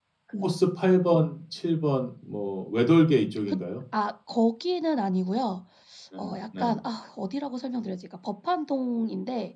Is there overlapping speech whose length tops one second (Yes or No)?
No